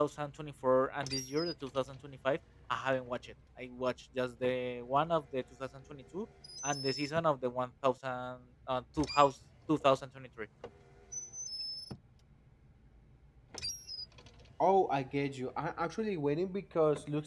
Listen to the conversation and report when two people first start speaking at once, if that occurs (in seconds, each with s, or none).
none